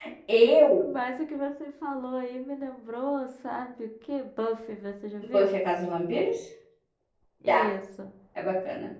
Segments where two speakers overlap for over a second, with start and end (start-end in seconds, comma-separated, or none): none